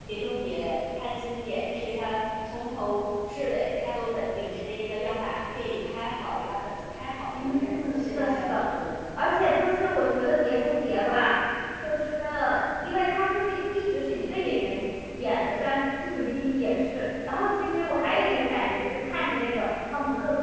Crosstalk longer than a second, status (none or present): present